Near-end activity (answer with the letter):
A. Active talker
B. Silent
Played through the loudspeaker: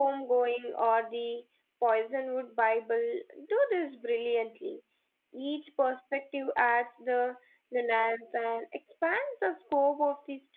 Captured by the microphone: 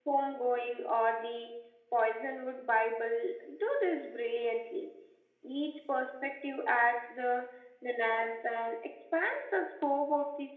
B